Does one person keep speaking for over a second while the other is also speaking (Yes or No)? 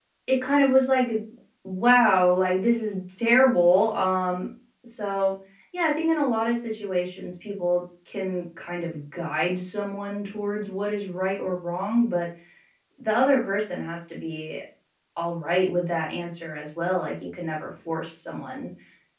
No